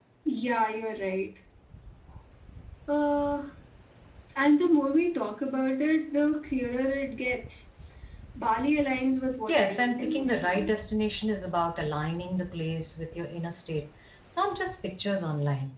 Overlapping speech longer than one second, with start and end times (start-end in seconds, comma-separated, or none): 9.5-10.7